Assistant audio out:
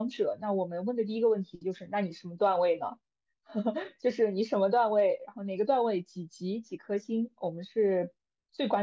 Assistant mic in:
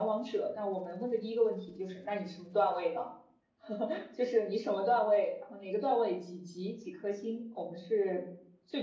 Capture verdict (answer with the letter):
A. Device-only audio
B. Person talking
A